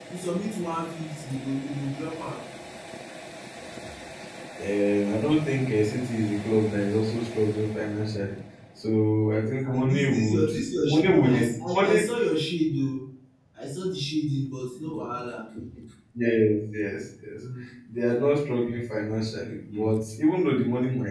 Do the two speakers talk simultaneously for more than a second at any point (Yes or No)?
Yes